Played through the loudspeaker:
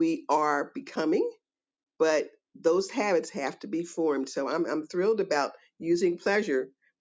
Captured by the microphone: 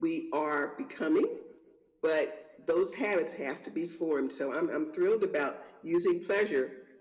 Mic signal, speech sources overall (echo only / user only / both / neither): echo only